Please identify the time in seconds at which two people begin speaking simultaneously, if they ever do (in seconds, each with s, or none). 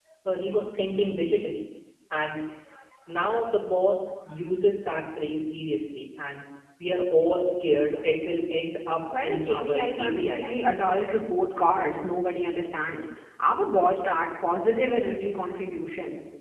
9.1 s